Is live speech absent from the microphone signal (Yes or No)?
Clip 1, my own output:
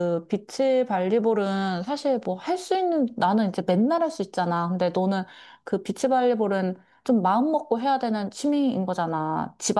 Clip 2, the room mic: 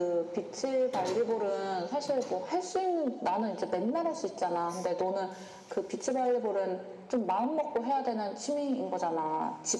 Yes